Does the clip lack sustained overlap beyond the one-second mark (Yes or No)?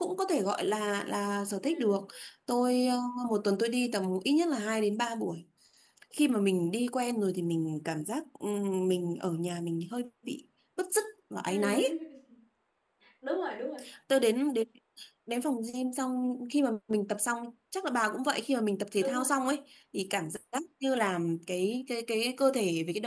Yes